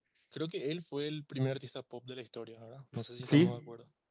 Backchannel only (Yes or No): No